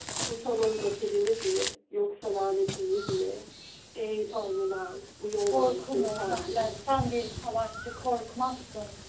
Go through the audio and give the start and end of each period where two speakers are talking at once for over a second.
5.5-6.7

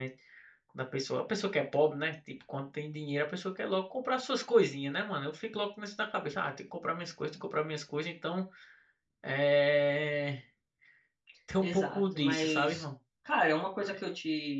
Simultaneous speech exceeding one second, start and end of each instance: 11.6-12.8

